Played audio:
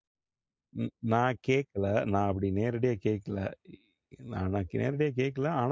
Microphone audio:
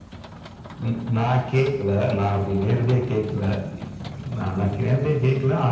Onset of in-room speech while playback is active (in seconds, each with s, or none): none